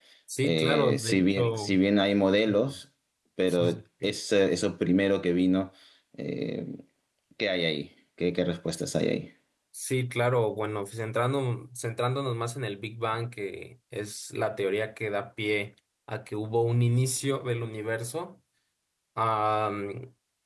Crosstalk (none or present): present